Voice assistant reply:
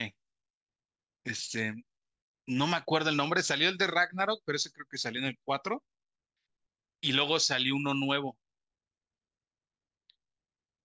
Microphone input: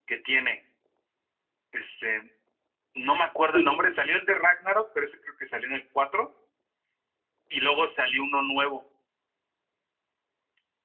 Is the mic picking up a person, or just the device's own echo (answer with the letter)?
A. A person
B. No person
A